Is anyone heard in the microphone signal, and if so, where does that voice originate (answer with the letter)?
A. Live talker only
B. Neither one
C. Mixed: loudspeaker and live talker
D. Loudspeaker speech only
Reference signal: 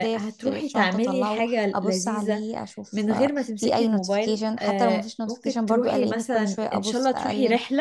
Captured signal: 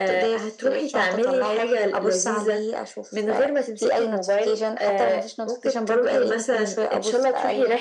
D